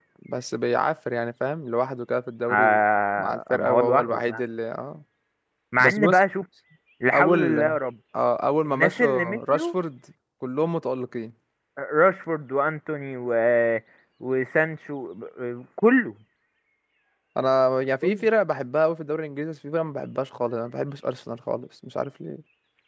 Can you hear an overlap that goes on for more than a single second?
Yes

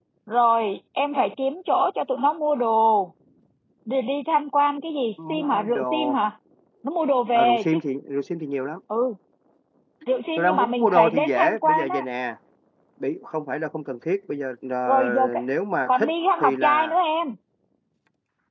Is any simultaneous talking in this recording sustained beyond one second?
Yes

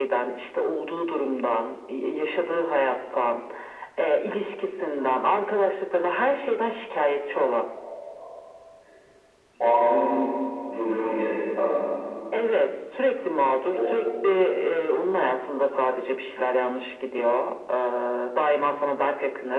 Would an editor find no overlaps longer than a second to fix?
Yes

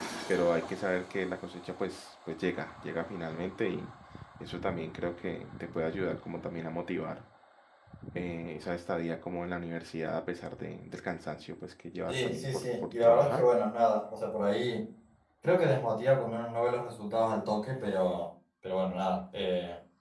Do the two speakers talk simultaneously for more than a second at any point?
Yes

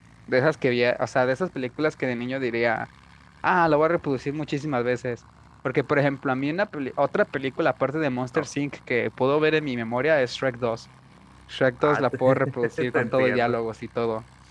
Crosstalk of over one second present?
Yes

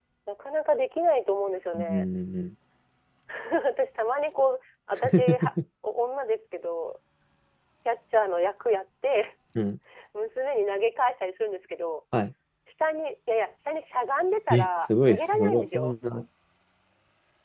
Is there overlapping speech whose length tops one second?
Yes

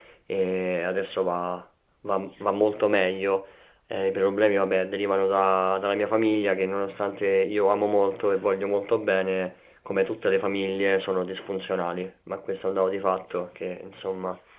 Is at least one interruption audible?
No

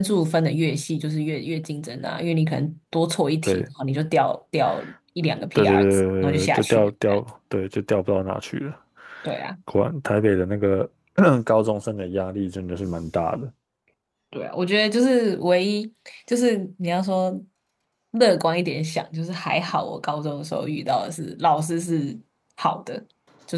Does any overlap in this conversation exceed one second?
Yes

